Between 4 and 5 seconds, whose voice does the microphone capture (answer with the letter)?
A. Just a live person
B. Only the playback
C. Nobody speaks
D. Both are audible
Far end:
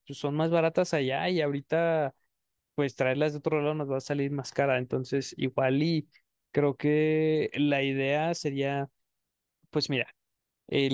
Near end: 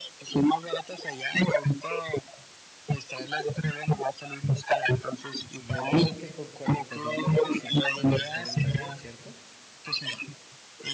B